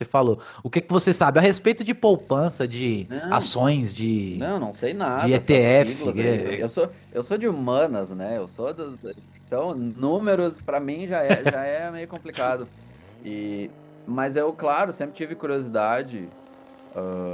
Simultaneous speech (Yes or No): Yes